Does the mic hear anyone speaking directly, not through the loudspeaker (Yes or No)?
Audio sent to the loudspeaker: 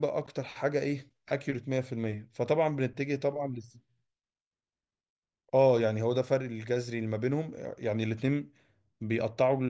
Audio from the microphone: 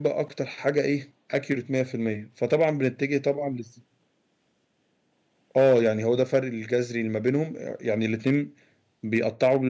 No